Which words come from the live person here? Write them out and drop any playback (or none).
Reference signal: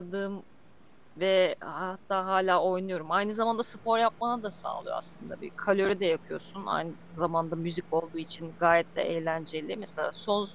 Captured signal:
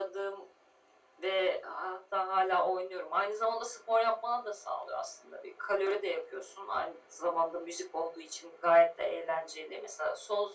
none